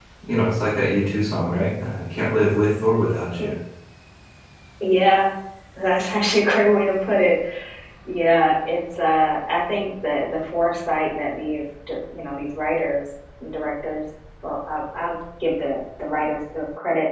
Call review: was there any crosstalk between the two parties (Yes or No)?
No